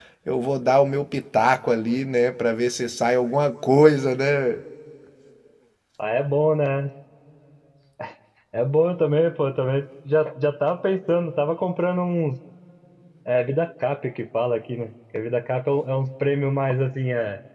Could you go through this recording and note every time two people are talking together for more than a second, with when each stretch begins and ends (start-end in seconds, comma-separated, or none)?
none